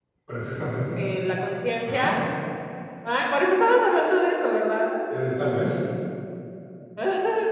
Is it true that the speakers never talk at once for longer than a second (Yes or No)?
Yes